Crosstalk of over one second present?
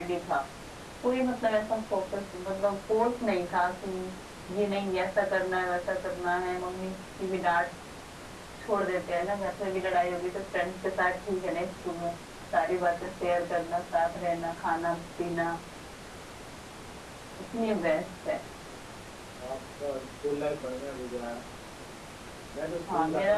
No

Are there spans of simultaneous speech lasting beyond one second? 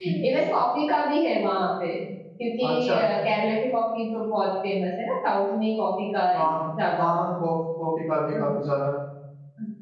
No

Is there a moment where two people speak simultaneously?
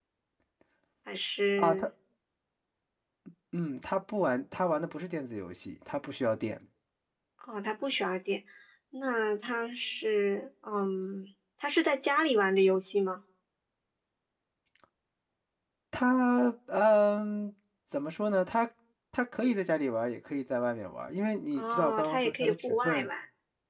Yes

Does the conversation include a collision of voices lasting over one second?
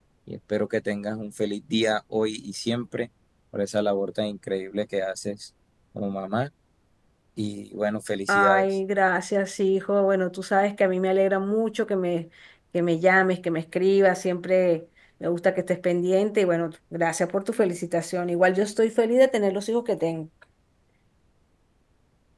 No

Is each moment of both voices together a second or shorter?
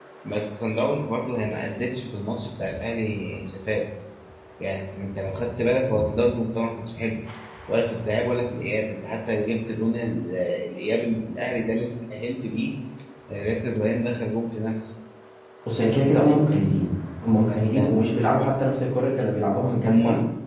Yes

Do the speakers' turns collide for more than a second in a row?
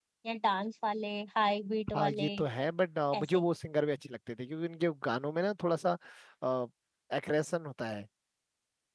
No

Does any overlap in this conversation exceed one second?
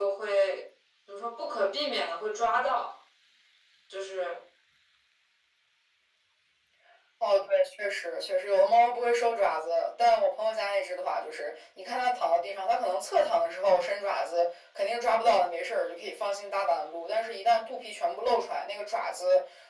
No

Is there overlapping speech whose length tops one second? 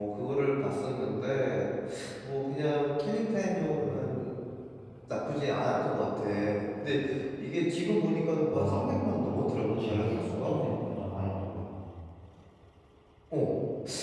Yes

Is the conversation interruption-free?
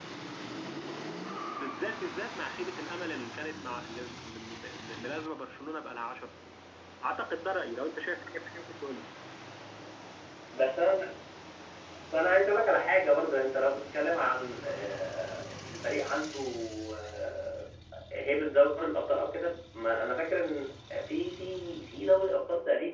Yes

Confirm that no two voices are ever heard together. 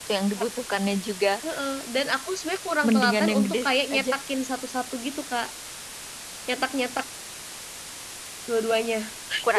No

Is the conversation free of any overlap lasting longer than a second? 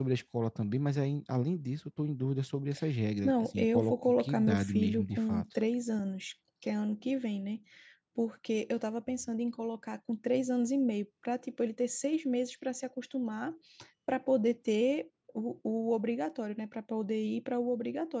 No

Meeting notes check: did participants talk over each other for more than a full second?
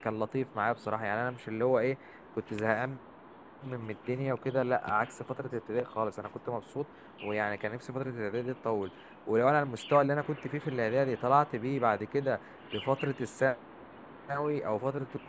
No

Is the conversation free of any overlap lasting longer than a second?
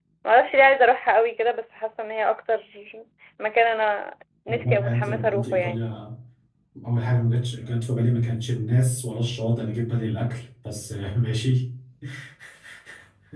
No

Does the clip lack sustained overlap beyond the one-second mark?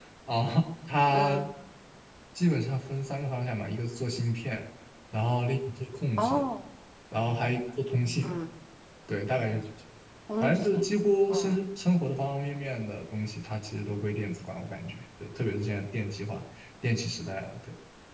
Yes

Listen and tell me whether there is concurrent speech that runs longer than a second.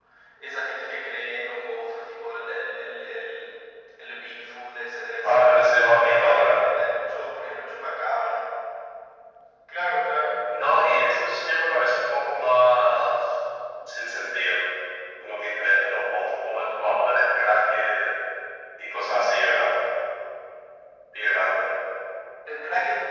Yes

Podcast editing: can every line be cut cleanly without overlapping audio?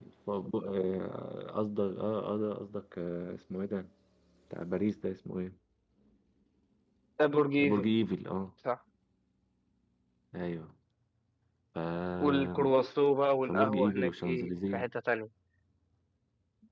No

